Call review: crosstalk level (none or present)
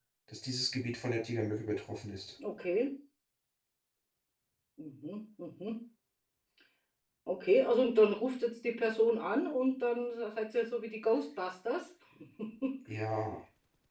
none